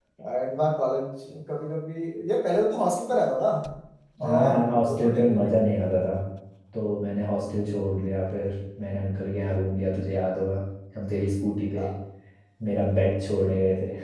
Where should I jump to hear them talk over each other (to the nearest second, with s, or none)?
4 s